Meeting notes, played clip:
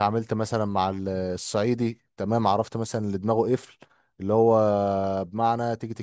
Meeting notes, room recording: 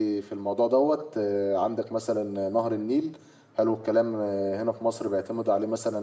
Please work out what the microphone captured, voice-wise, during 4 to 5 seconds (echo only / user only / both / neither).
user only